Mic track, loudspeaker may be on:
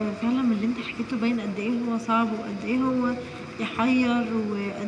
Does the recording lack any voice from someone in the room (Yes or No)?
Yes